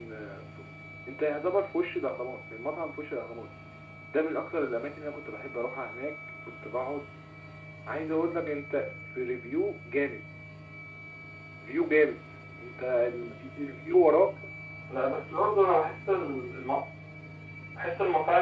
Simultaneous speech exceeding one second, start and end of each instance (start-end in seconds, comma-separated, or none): none